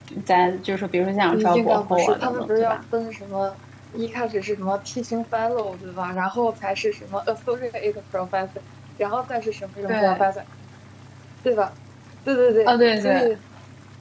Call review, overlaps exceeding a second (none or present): present